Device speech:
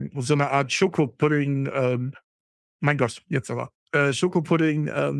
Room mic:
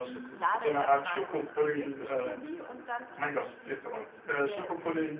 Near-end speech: present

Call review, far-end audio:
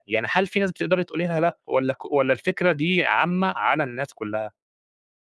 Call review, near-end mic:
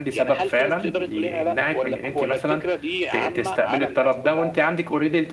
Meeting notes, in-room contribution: present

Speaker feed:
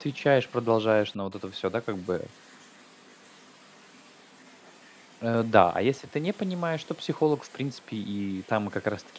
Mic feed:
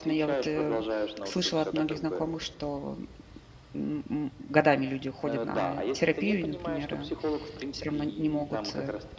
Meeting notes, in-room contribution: present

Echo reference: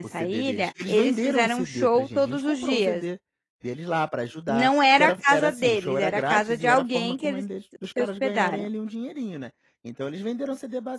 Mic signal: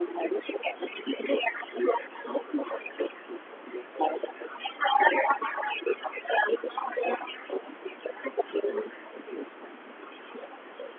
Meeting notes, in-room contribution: none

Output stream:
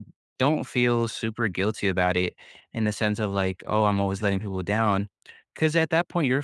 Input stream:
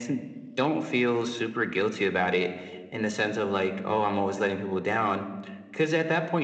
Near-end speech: none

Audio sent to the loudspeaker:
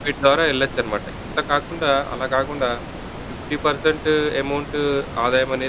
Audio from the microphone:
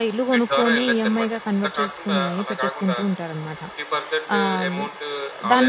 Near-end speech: present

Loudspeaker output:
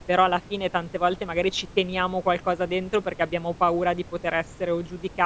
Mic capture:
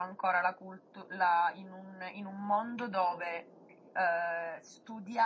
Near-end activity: present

